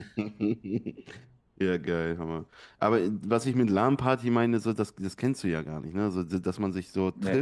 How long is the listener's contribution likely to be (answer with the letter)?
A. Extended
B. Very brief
B